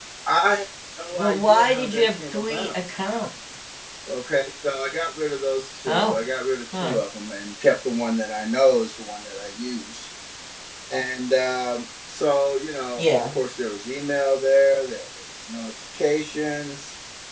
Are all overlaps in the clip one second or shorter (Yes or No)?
No